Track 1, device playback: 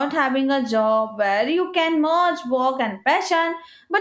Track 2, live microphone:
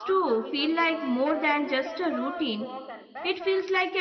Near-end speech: present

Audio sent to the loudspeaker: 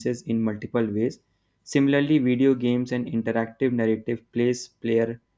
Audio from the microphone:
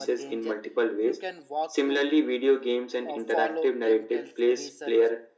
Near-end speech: present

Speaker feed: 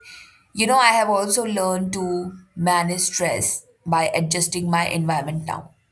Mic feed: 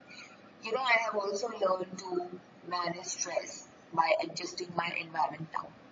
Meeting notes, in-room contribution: none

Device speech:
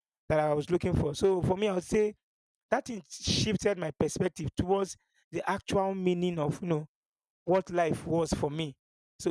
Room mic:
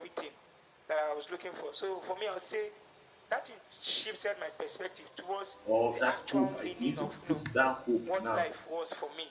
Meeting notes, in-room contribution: present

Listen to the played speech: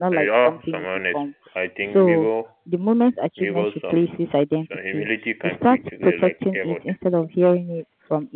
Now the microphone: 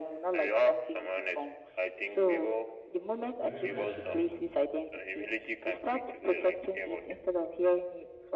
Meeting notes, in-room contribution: present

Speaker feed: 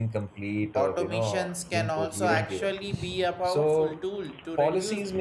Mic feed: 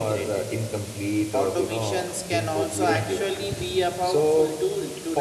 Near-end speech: none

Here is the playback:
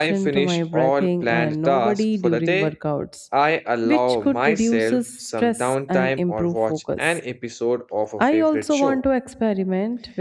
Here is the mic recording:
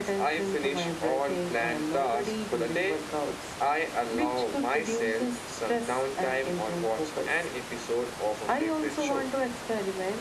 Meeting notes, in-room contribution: none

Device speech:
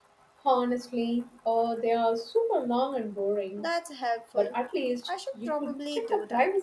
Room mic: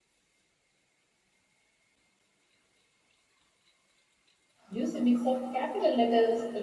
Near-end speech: present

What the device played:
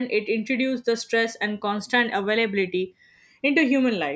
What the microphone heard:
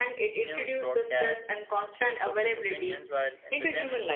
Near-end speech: present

